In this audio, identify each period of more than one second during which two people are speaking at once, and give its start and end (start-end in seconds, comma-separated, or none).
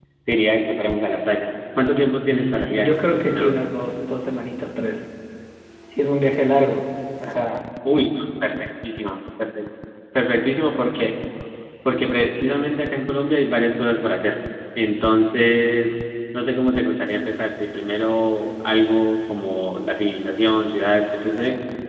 2.3-3.6